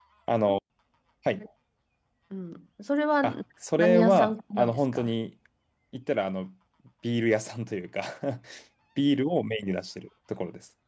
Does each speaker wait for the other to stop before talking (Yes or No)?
No